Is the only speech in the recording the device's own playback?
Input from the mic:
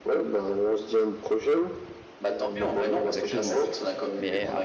No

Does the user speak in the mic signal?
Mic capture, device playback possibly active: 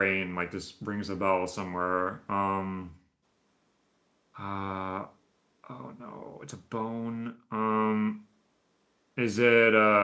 Yes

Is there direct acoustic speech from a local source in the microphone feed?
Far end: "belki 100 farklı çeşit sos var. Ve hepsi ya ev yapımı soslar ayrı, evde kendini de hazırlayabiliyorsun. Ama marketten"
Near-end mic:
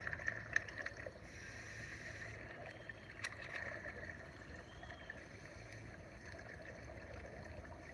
No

